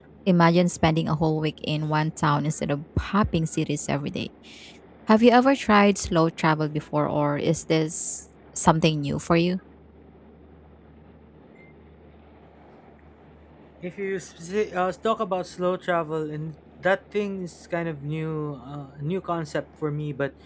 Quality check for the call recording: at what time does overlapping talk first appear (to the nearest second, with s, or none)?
none